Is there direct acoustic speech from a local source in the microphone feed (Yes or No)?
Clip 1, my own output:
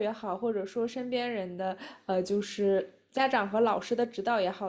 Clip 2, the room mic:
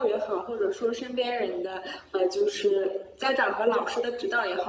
No